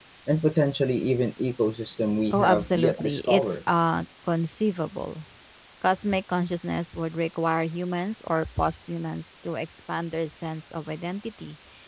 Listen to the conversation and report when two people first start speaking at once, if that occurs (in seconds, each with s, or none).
2.3 s